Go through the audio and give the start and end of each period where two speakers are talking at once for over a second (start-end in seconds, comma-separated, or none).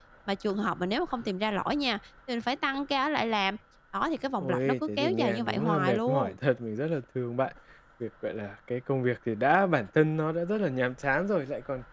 4.4-6.4